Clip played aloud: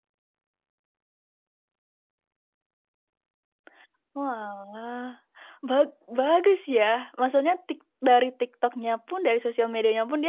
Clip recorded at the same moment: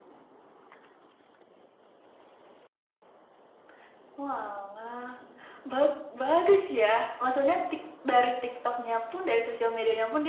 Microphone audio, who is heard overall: echo only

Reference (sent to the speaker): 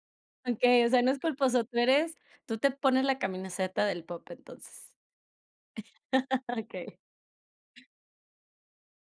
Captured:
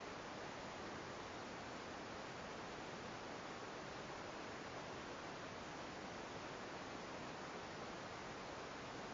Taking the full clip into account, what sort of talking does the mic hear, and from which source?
neither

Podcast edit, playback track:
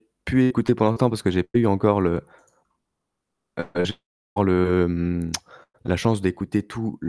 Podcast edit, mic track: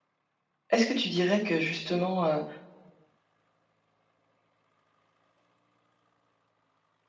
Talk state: user only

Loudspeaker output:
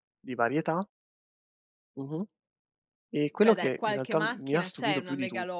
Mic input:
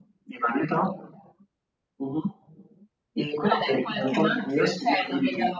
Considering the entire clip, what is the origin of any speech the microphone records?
echo only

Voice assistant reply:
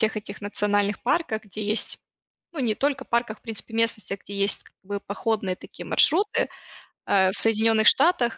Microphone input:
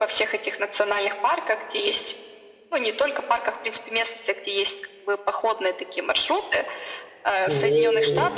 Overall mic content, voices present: both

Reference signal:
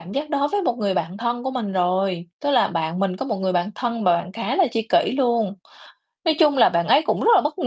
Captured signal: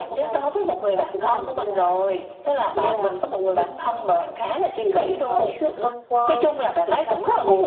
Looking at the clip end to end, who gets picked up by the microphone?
both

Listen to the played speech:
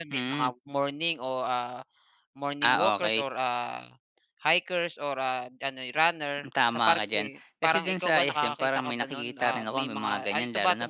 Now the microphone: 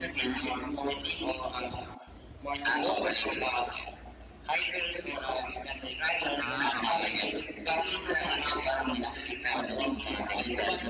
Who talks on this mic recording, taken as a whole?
both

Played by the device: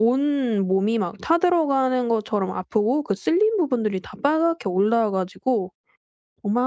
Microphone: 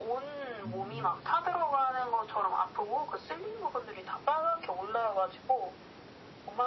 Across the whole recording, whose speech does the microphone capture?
both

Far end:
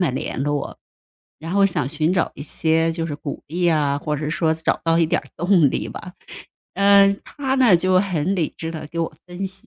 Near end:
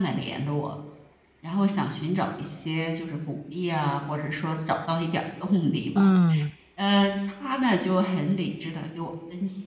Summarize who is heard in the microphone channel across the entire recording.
both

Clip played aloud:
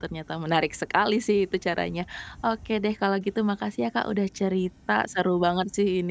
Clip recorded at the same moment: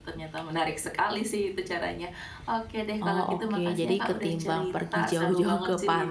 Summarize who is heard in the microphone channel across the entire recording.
both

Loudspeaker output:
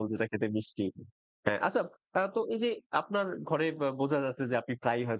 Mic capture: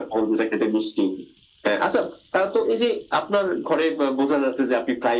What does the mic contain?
echo only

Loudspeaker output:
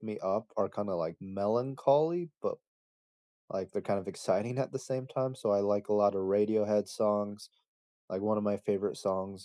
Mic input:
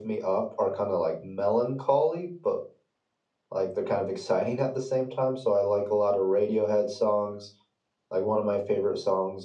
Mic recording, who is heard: echo only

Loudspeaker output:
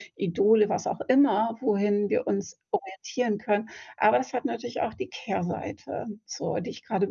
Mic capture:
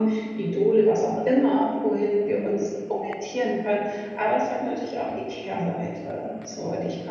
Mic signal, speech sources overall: echo only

